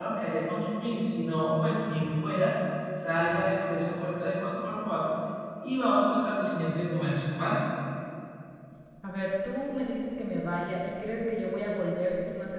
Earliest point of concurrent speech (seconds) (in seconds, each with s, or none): none